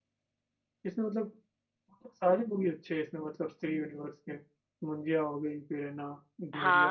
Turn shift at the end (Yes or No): Yes